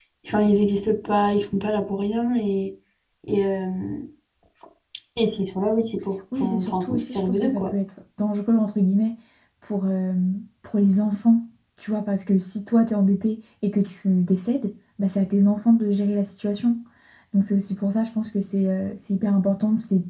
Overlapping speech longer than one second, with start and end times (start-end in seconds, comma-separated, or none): 6.4-7.7